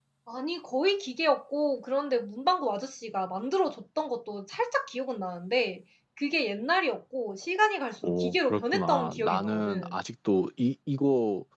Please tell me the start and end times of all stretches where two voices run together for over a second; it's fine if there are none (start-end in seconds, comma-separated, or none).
8.0-10.0